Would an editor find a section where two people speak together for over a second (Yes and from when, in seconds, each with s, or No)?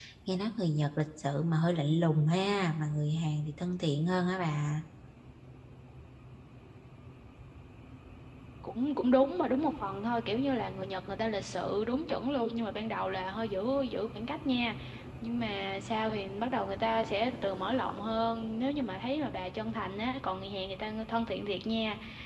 No